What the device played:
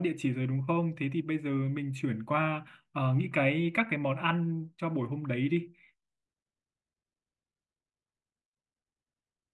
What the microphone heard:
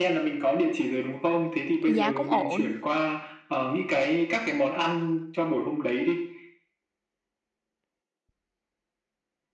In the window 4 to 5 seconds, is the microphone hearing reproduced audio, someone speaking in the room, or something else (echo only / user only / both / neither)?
echo only